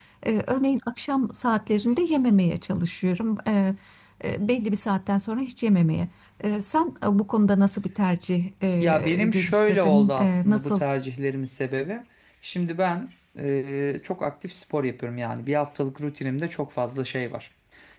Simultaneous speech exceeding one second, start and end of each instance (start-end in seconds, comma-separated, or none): 8.8-10.8